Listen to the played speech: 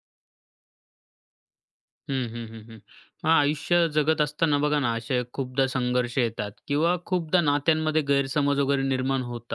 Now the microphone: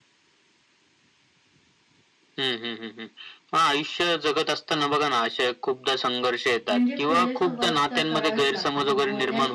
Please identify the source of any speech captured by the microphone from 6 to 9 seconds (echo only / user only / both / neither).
both